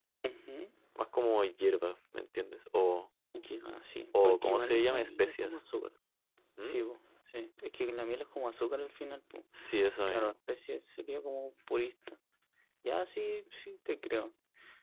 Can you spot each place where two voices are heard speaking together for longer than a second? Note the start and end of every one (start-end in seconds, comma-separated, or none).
4.2-5.6